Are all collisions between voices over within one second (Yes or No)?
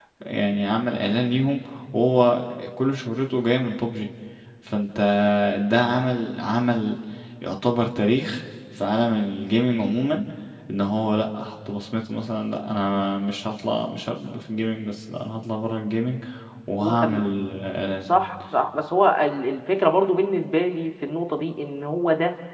Yes